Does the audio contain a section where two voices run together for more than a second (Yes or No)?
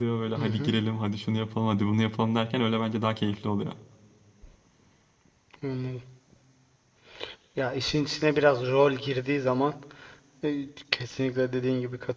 No